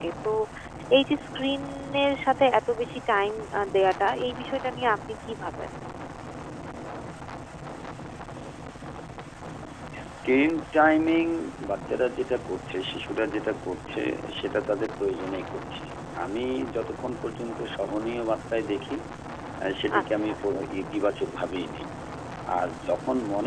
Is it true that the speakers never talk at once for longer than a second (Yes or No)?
Yes